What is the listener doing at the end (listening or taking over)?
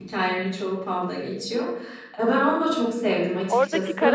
taking over